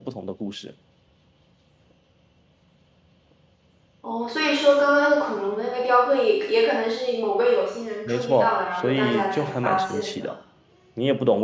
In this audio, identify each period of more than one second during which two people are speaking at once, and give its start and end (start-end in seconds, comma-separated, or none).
8.1-10.3